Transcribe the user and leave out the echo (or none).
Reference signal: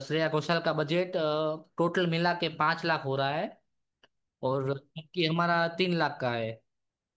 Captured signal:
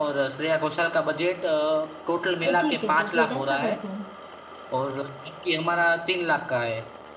अ, ठीक है तो फिर ऐसा करते हैं